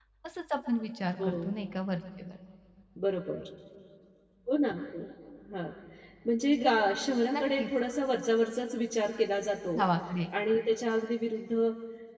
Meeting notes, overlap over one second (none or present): none